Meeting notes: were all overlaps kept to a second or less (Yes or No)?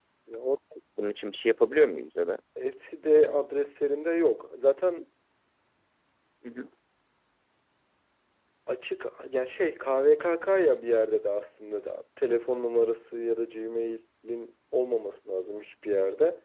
Yes